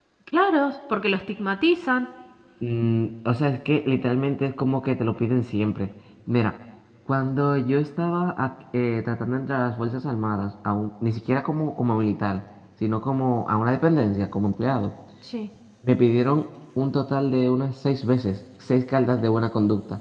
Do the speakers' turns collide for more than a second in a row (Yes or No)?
No